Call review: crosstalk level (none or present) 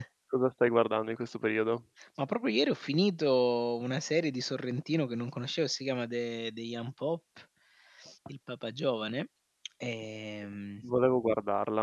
none